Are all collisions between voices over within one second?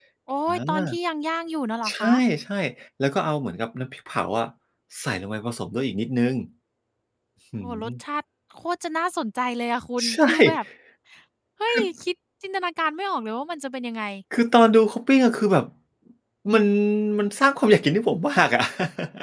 Yes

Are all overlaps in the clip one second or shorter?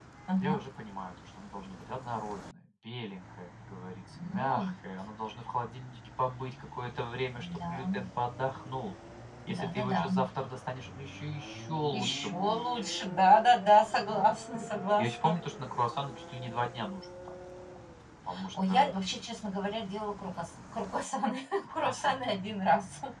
No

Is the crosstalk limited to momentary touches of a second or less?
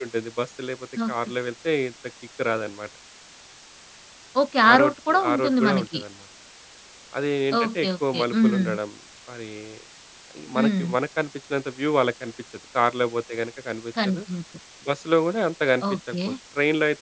No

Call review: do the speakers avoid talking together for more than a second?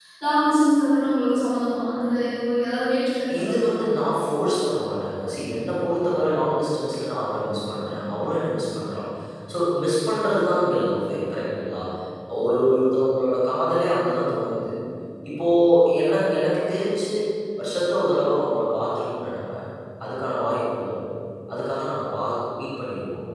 Yes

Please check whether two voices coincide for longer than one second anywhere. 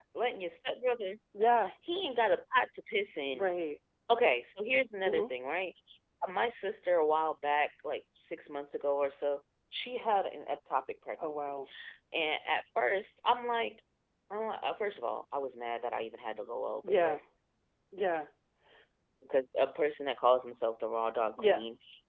No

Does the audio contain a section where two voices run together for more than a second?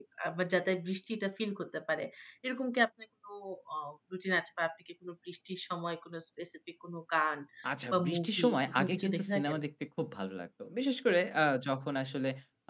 Yes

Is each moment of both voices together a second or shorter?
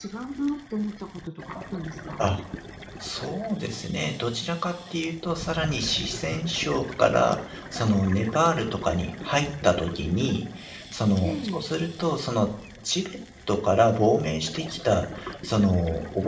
Yes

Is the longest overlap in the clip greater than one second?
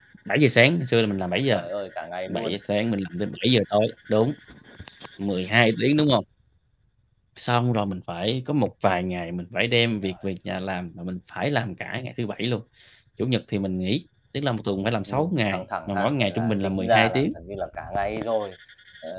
Yes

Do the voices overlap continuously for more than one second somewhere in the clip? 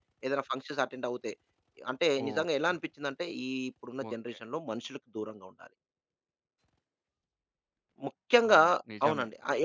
No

